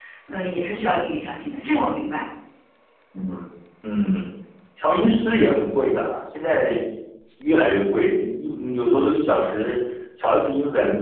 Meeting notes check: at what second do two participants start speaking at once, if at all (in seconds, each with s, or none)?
none